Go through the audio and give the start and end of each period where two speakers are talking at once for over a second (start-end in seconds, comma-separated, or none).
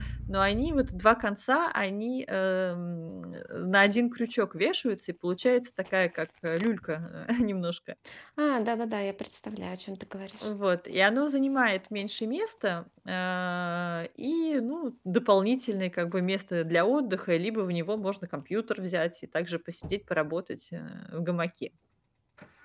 none